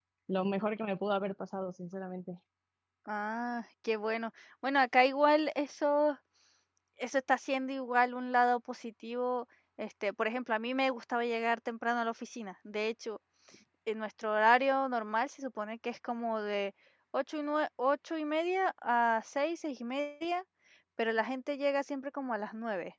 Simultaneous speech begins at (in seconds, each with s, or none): none